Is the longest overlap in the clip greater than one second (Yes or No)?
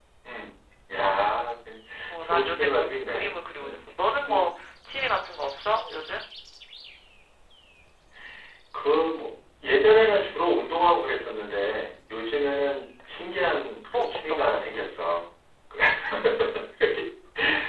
Yes